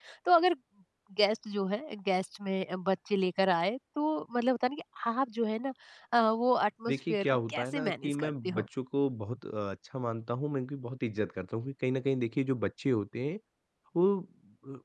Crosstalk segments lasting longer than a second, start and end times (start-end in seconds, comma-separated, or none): 6.9-8.7